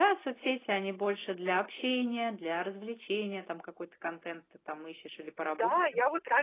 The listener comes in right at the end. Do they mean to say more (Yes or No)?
Yes